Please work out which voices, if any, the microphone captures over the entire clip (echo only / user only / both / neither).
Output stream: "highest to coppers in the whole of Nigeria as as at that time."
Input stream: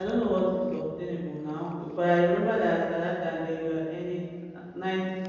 user only